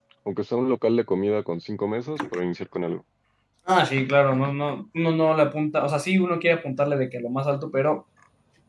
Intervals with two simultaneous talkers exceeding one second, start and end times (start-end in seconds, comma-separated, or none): none